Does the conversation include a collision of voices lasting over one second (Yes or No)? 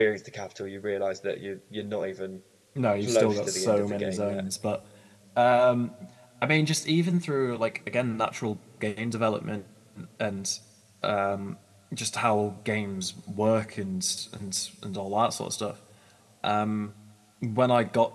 Yes